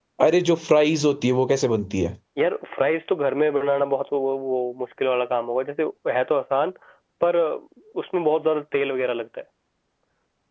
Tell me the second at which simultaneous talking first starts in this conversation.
none

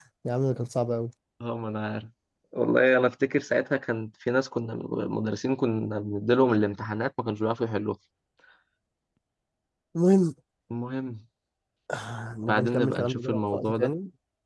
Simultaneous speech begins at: 12 s

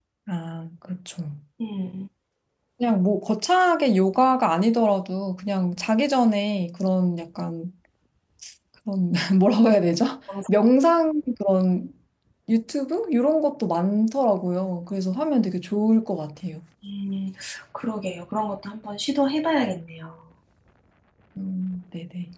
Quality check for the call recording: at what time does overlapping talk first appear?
none

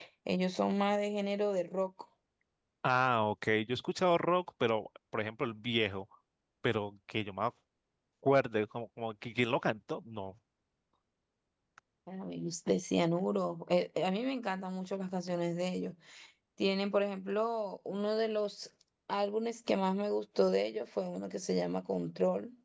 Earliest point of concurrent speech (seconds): none

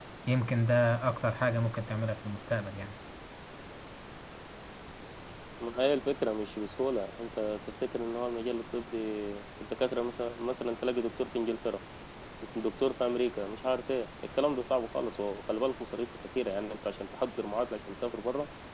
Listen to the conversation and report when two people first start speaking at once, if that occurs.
none

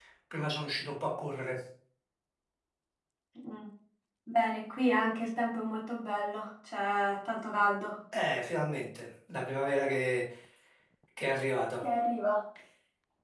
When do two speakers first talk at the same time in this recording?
none

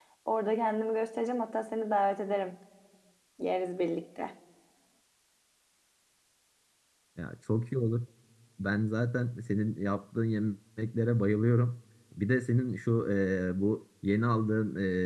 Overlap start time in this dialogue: none

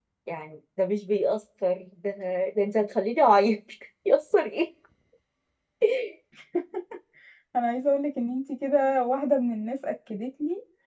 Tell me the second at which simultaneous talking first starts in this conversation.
none

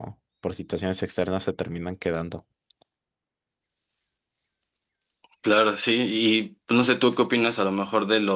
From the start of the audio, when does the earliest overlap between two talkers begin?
none

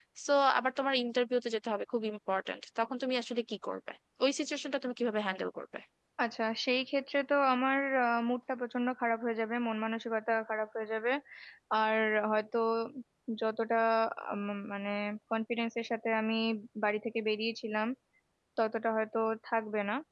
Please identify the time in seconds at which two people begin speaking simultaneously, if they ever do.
none

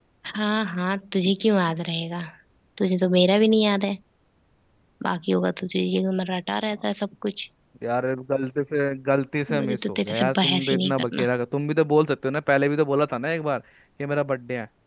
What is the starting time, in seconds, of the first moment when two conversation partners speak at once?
9 s

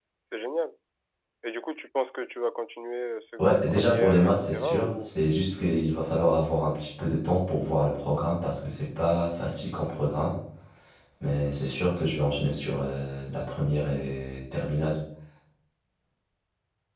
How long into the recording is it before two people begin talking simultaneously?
3 s

